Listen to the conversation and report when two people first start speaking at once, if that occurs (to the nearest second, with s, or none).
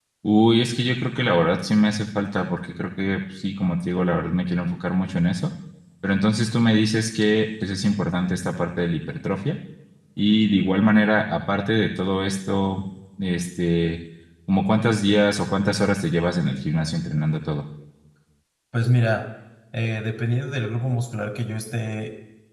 none